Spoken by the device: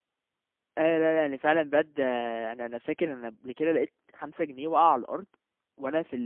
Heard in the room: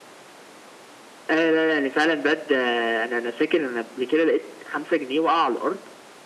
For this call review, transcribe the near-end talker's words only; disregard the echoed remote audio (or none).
none